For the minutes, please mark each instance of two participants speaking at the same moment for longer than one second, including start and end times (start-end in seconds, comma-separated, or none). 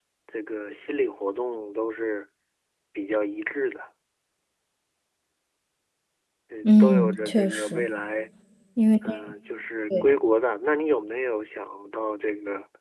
6.6-7.9